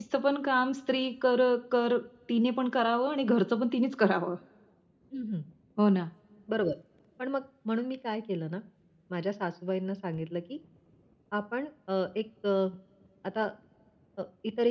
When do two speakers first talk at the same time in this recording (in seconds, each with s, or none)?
none